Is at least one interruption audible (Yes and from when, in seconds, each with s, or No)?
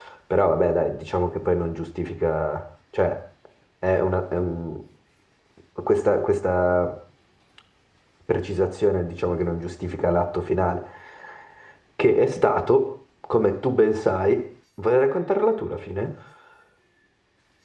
No